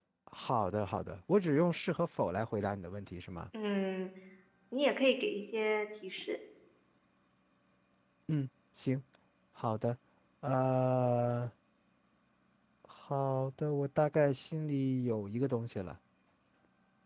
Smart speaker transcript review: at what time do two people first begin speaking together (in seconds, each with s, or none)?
none